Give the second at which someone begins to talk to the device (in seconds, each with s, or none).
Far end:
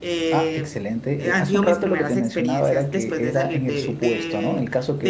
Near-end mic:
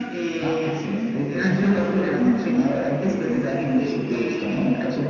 none